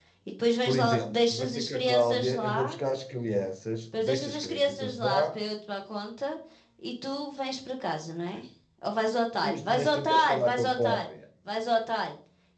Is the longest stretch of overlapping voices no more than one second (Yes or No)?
No